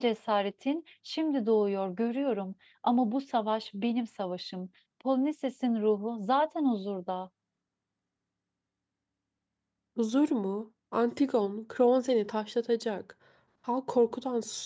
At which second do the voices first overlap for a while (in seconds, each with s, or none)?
none